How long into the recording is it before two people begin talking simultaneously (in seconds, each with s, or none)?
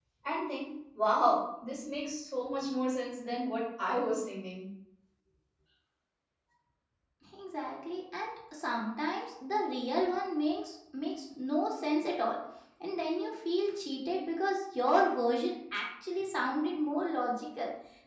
none